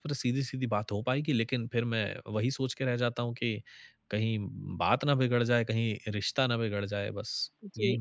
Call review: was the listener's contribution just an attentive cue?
No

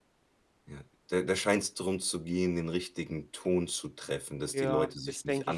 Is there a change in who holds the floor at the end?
Yes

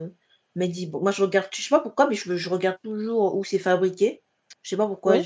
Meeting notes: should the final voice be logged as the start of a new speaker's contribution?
No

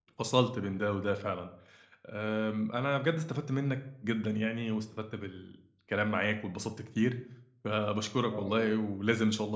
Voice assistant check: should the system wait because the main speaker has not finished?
Yes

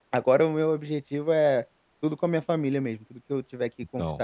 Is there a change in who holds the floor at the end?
No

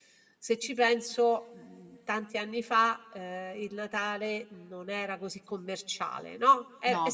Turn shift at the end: No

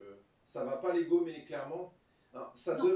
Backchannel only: Yes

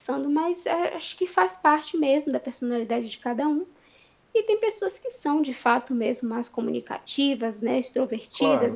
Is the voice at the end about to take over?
No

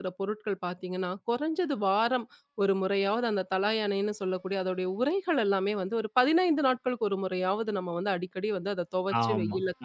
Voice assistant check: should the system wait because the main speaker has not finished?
No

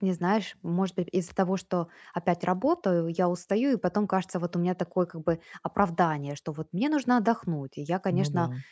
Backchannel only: Yes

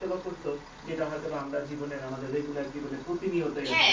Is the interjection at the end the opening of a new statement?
Yes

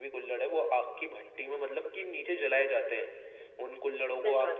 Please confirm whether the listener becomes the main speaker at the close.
No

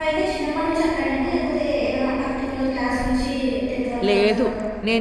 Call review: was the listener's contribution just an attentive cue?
No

